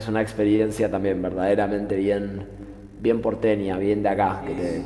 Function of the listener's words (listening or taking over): listening